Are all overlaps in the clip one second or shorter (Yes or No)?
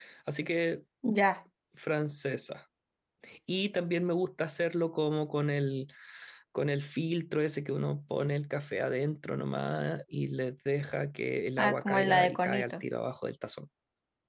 No